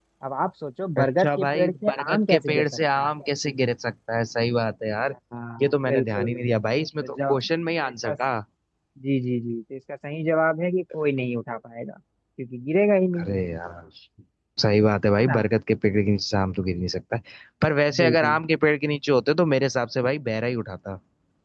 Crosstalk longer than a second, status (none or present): present